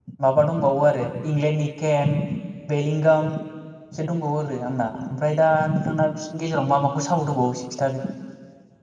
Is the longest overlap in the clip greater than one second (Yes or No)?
No